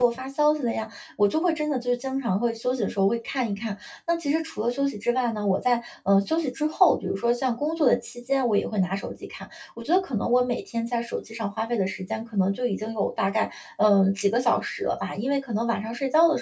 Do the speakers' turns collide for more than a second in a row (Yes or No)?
No